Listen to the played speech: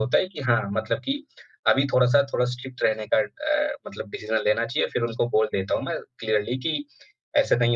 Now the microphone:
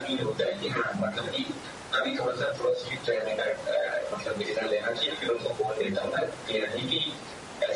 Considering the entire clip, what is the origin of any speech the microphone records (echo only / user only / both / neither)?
echo only